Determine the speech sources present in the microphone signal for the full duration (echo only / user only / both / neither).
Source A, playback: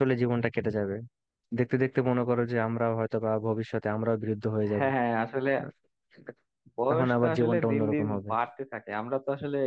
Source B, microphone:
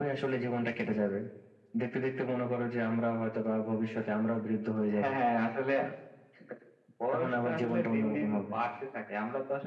echo only